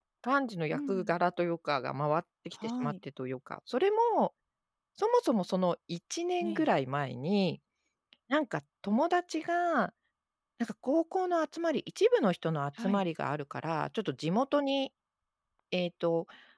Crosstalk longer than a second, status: none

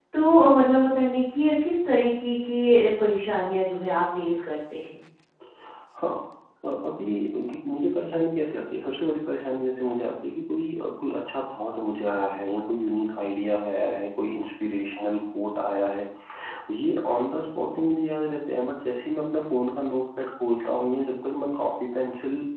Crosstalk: none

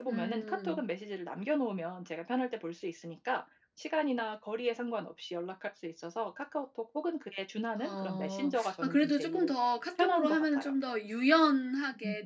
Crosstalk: present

